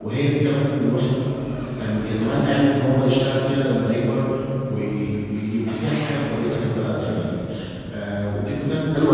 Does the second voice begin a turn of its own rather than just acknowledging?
Yes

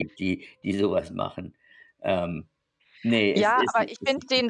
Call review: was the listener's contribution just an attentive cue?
No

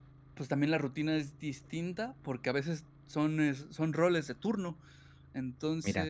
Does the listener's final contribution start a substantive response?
No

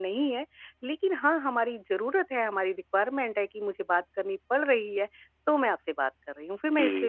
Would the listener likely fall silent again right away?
No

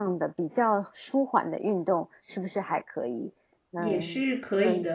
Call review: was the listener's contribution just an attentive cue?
No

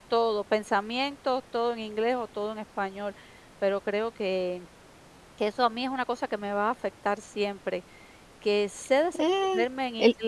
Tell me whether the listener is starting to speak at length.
No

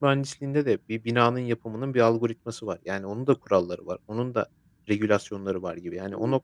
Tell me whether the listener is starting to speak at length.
Yes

